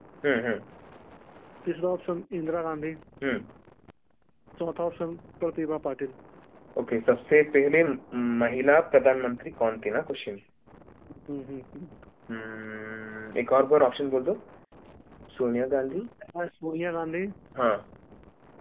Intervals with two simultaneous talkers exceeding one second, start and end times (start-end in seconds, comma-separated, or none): none